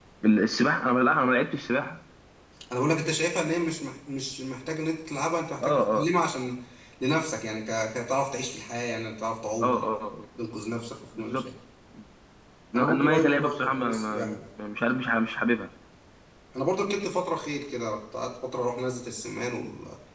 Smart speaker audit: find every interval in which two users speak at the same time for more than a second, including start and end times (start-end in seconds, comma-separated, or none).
12.8-14.4